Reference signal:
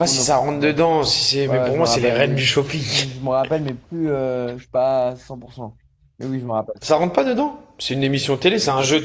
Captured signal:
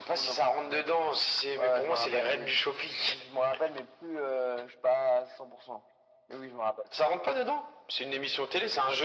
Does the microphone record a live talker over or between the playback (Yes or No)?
No